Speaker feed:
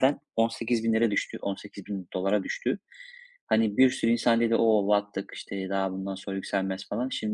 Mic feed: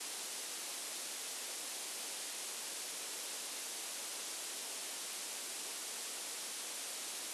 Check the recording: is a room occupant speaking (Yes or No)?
No